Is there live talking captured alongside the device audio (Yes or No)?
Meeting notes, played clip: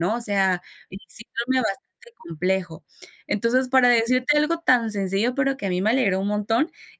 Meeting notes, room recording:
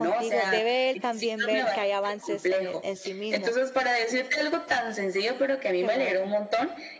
Yes